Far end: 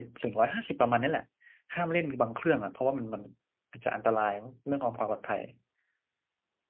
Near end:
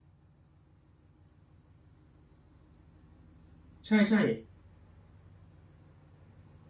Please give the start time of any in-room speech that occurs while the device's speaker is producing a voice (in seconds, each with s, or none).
3.9 s